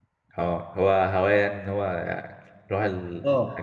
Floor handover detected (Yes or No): Yes